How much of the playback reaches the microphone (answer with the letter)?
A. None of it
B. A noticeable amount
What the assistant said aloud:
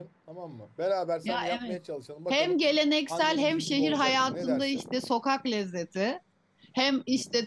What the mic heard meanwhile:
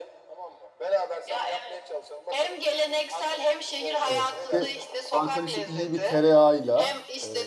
B